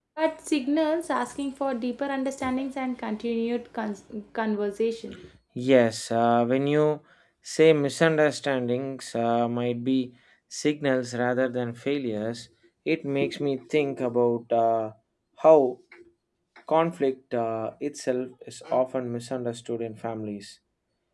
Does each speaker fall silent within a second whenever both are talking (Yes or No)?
Yes